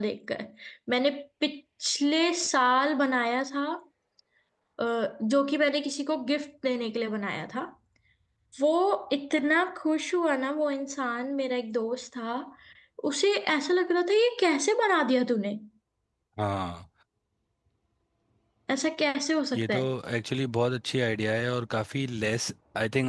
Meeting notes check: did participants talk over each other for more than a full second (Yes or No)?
No